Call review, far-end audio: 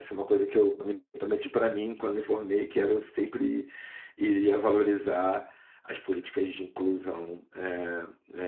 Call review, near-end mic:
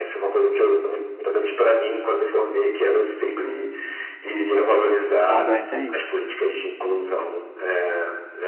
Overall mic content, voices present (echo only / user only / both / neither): both